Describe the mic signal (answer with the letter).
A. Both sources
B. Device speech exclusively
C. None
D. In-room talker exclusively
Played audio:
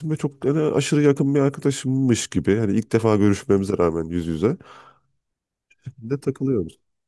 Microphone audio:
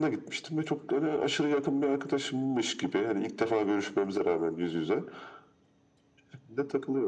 B